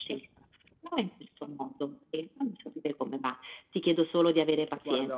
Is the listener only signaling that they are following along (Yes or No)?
Yes